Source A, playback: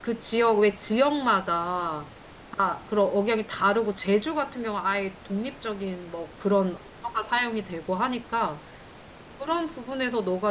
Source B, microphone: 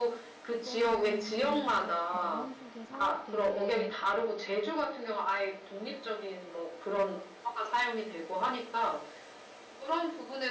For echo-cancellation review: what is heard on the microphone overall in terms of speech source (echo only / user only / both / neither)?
both